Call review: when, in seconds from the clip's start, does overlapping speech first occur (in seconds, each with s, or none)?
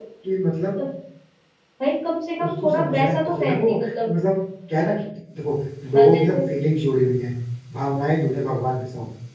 2.4 s